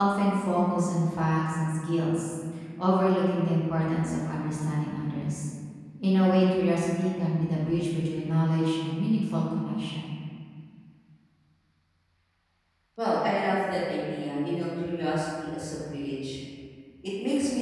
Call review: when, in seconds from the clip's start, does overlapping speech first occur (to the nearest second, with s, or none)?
none